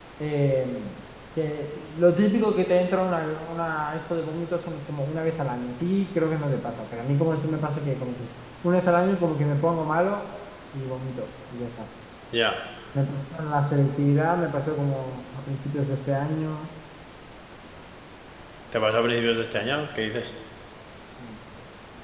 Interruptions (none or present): none